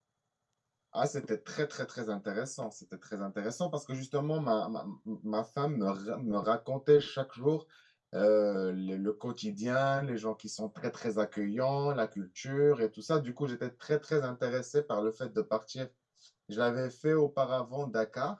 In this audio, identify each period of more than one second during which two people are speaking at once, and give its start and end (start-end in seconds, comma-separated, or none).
none